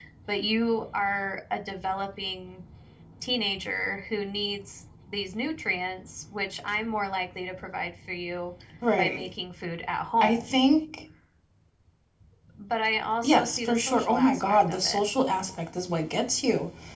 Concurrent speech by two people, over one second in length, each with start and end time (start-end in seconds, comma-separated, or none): 13.2-15.0